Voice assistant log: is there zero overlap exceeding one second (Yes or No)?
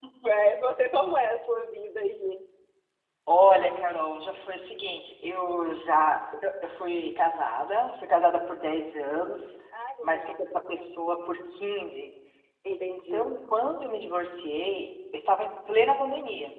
Yes